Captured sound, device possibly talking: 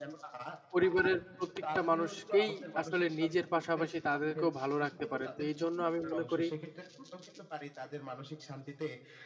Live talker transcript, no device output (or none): পরিবারের প্রত্যেকটা মানুষকেই আসলে নিজের পাশাপাশি তাদেরকেও ভালো রাখতে পারেন। তো এইজন্য আমি মনে করি